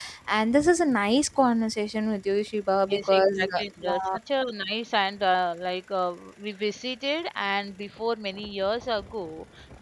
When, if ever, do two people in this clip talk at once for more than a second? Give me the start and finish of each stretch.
2.9-4.2

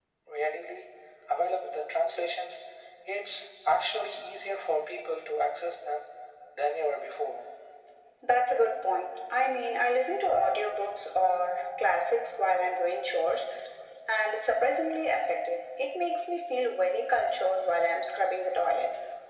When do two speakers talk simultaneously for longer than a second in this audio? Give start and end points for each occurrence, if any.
none

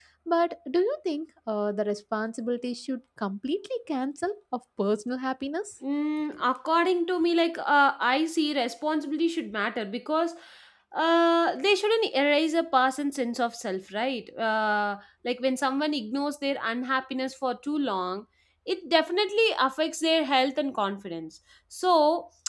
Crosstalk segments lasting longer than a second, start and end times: none

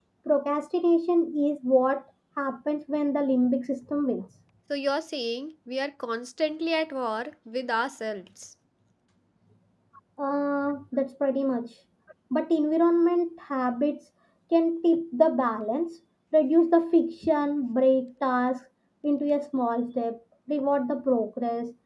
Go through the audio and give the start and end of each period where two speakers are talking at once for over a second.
none

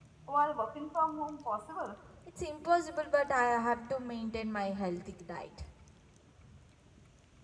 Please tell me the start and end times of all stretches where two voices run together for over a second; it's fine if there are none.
none

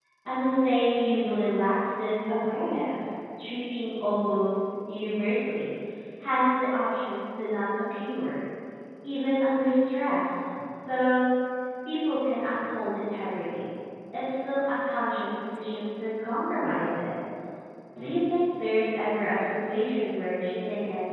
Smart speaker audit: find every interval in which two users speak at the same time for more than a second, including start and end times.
none

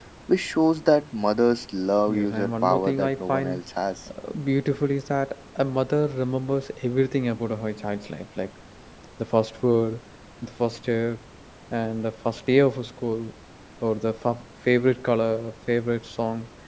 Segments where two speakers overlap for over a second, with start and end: 2.1-3.6

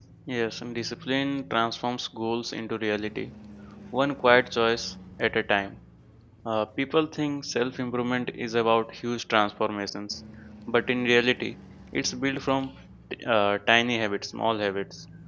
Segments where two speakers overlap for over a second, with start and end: none

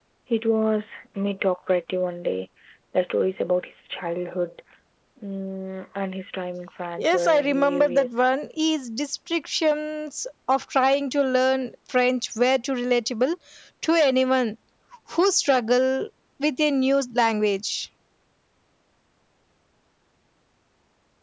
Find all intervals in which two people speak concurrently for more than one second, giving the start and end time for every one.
7.0-8.2

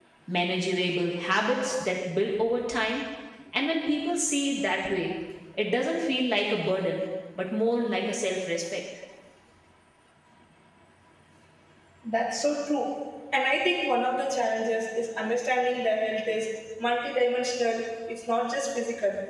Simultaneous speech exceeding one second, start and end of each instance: none

